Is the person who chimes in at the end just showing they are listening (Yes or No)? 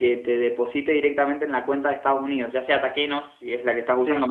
Yes